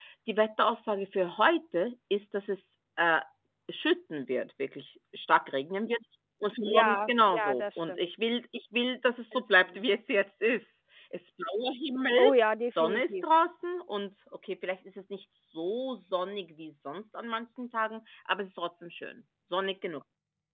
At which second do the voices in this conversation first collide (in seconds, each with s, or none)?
6.7 s